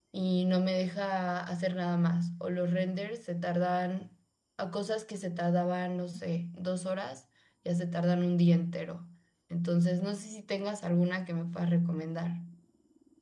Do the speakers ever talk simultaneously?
No

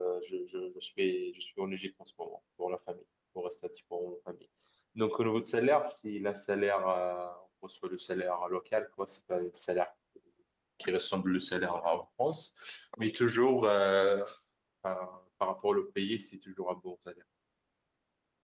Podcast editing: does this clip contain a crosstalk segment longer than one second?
No

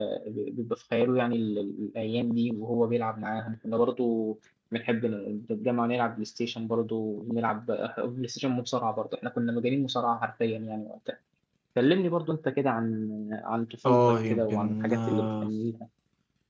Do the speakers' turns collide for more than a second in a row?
Yes, from 13.8 s

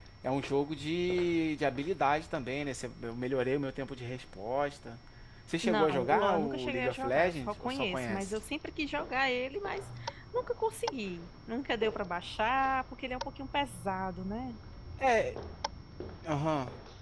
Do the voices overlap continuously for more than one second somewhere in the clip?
Yes, from 5.6 s

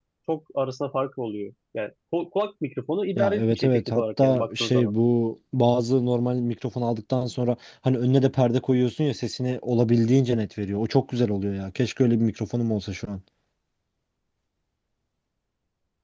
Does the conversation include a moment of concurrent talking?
Yes, from 3.2 s

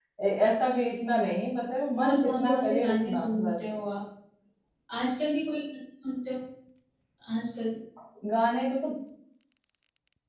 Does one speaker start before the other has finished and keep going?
Yes, from 2.0 s

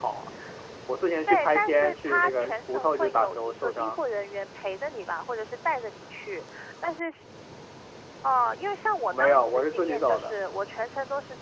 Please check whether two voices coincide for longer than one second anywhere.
Yes, from 1.3 s

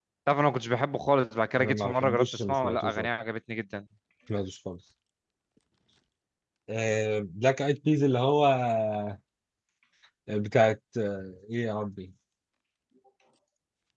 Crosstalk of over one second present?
Yes, from 1.6 s

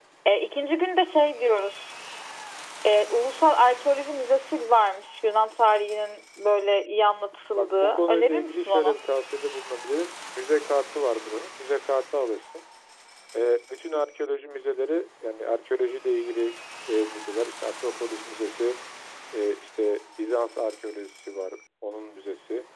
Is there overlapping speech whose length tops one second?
Yes, from 7.6 s

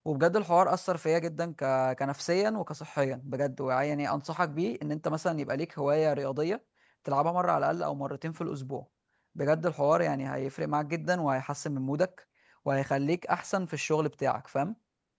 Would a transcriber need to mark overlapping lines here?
No

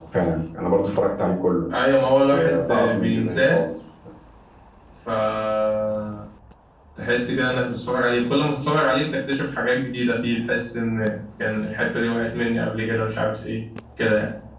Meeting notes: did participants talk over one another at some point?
Yes, from 2.3 s

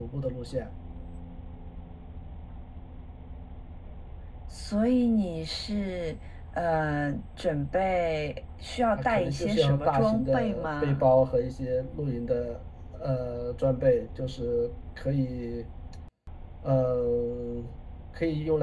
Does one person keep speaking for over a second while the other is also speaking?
Yes, from 8.9 s

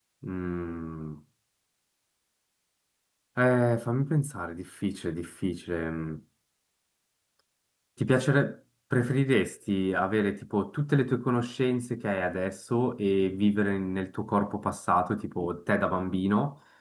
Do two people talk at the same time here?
No

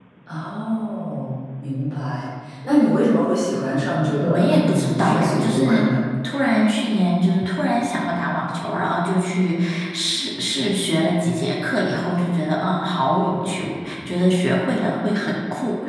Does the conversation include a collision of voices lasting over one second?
Yes, from 4.2 s

